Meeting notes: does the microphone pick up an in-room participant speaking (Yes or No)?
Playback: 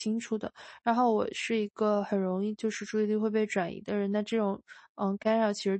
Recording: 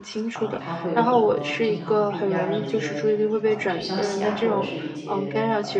Yes